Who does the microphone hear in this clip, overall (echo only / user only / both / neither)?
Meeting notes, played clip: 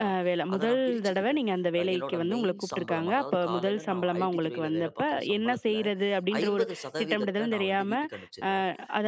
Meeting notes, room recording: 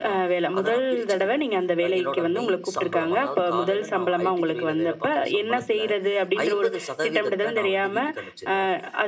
echo only